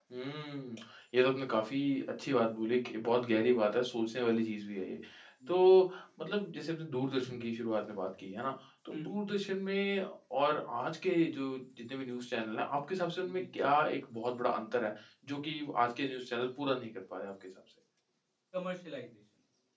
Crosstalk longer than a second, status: none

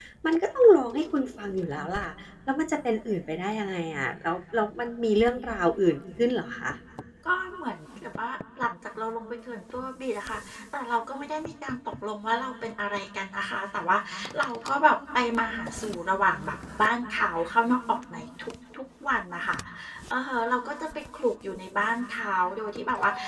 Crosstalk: none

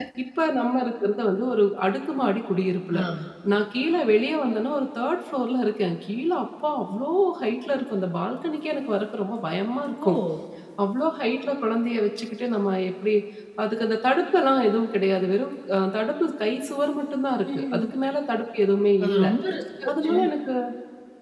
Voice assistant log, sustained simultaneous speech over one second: none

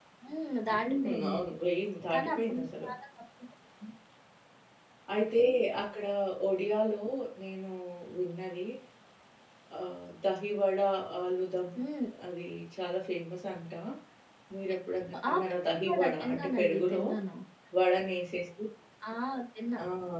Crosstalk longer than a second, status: present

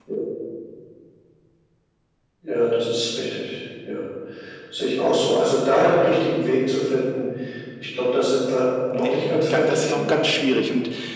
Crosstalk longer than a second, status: present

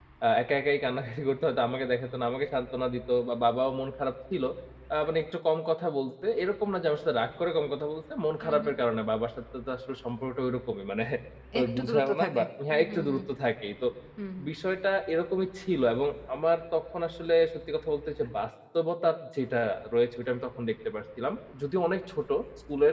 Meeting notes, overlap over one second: present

